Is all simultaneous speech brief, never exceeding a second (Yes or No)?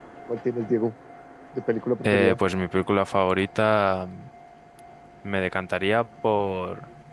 Yes